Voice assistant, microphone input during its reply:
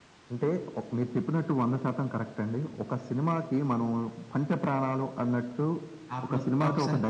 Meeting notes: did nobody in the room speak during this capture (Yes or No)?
No